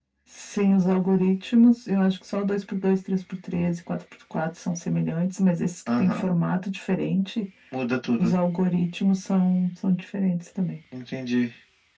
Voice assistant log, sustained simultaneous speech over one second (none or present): none